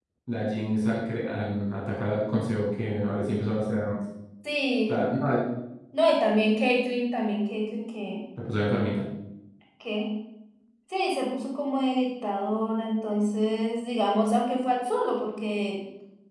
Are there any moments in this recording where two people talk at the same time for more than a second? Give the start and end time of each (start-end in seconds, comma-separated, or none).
none